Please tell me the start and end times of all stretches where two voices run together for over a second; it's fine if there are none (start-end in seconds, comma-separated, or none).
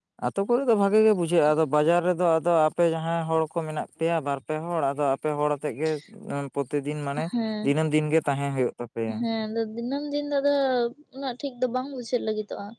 none